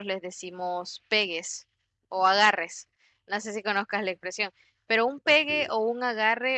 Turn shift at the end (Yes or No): No